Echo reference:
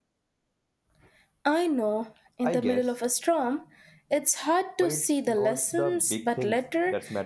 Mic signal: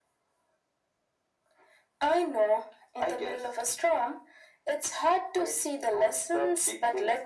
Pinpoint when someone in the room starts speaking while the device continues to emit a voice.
none

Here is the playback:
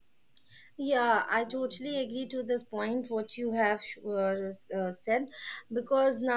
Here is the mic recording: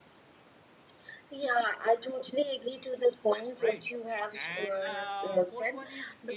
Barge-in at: 3.6 s

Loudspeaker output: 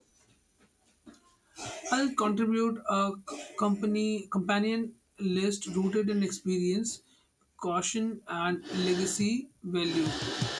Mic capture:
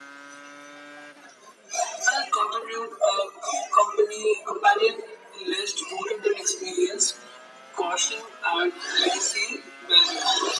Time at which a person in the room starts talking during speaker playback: none

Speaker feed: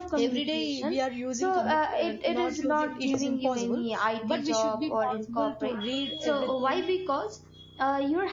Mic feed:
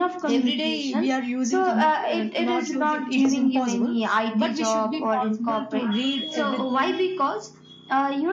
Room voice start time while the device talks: none

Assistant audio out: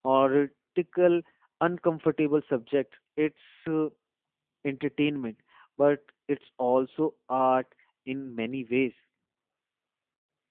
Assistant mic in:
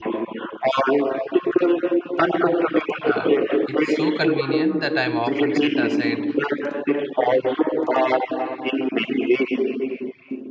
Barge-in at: 3.0 s

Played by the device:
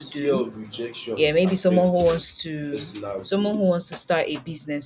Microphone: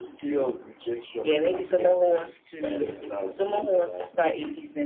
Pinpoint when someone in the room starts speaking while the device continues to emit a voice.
1.2 s

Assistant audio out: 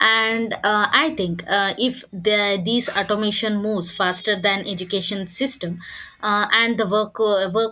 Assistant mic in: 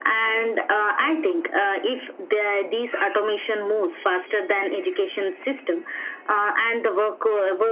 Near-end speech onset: none

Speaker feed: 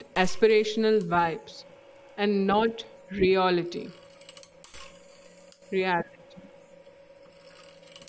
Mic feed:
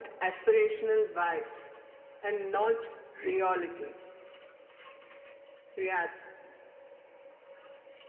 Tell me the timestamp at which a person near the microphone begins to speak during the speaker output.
none

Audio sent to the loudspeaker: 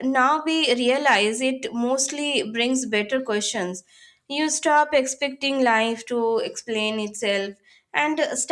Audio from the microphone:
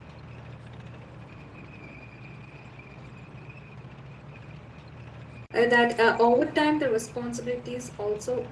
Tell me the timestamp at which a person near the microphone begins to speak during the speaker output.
5.5 s

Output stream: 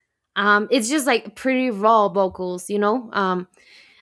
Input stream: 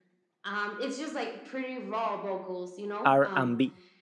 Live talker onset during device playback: 3.0 s

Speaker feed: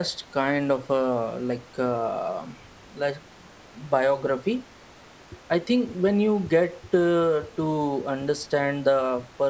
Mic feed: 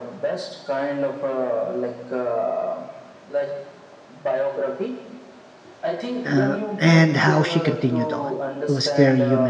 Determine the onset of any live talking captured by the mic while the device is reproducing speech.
6.2 s

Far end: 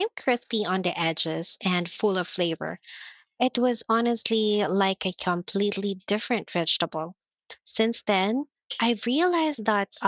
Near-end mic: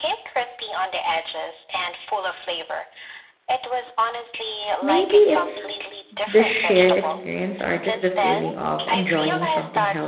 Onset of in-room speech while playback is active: 4.8 s

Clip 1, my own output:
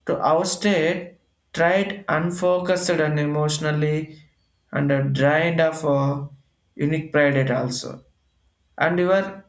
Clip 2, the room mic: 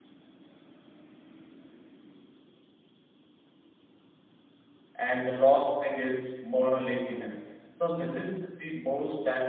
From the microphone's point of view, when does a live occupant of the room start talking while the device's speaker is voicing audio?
5.0 s

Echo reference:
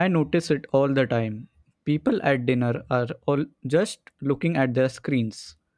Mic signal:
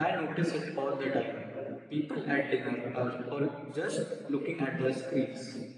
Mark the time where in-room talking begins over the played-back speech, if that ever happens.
none

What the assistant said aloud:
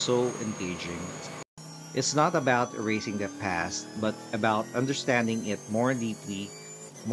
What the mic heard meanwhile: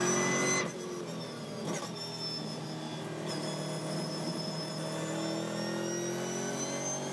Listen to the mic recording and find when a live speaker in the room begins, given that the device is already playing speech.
none

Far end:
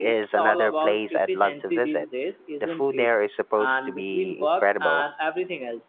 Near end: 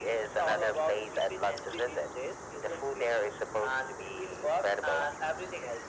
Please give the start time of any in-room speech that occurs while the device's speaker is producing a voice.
none

